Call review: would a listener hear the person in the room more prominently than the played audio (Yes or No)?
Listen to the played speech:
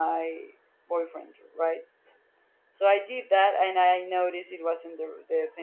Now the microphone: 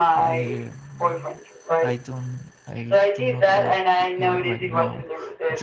No